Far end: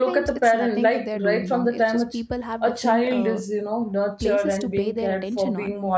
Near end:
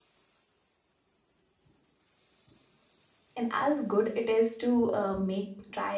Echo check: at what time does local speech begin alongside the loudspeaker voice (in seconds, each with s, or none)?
3.4 s